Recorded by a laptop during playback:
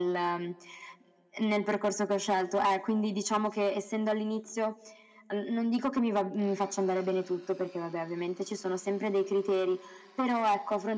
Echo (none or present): present